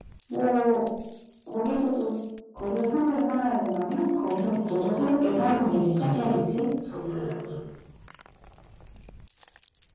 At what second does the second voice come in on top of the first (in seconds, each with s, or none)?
4.6 s